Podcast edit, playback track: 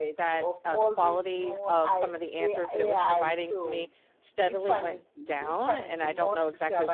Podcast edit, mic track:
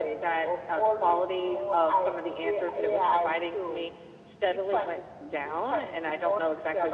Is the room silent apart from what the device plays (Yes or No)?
Yes